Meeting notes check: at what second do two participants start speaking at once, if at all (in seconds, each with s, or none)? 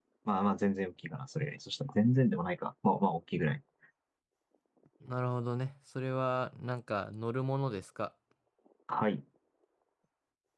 none